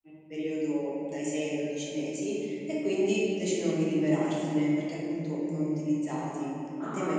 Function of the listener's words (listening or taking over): taking over